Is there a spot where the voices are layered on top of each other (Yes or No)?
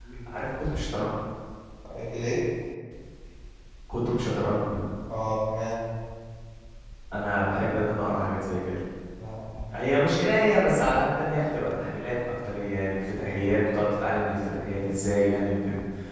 No